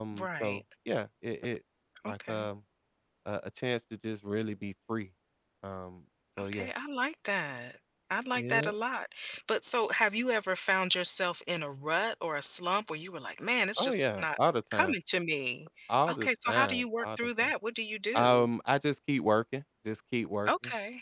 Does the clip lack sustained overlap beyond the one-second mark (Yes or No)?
No